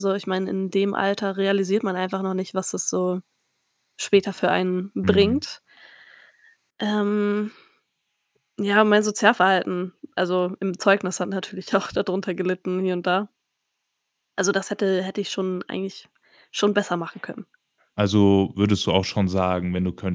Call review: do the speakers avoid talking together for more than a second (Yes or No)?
Yes